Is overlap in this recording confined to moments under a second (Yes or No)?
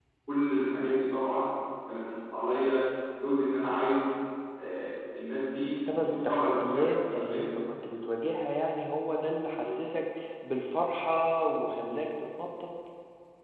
No